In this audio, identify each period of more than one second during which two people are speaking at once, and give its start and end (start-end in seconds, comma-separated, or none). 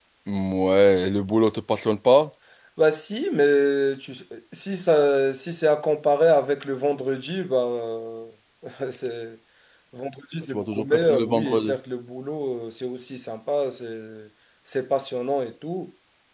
10.5-11.8